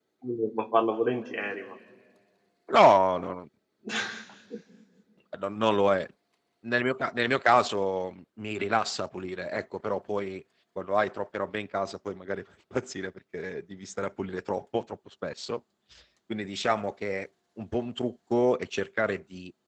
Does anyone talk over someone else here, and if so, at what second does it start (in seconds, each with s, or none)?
none